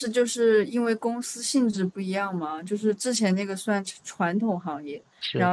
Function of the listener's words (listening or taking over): listening